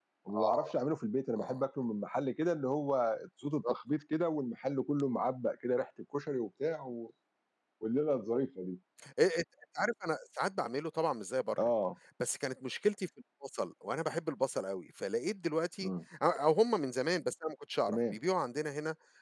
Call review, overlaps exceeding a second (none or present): none